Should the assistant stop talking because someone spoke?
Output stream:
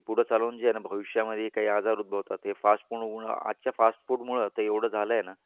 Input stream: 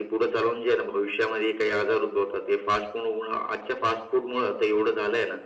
No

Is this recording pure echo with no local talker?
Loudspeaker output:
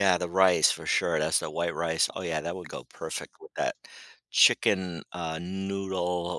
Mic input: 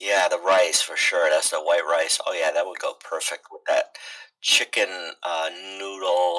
Yes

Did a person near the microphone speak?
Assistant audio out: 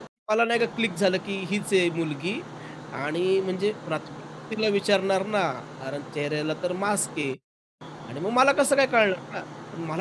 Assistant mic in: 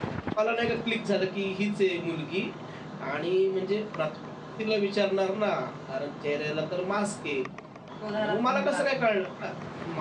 Yes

